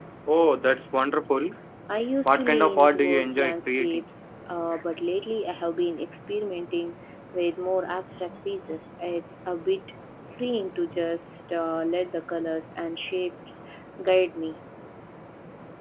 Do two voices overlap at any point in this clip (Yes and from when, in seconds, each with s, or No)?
Yes, from 2.2 s